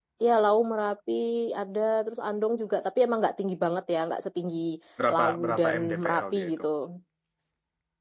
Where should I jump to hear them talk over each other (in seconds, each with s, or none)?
5.1 s